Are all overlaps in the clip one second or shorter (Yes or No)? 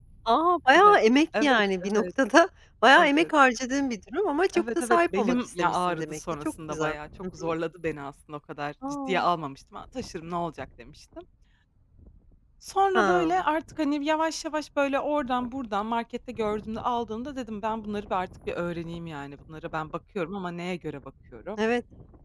No